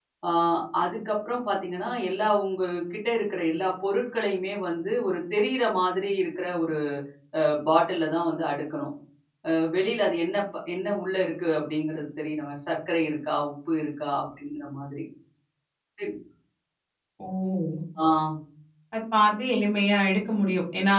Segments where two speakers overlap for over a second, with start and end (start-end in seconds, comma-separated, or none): none